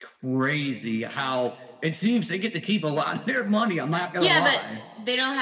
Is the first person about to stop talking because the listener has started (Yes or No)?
Yes